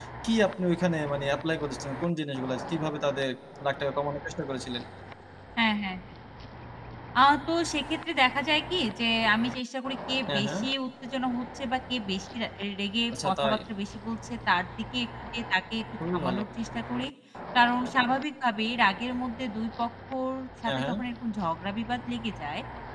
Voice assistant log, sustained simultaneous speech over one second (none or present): none